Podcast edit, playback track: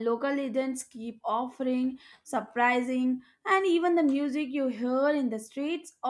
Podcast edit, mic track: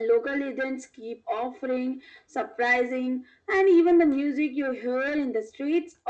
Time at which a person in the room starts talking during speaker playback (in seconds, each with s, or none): none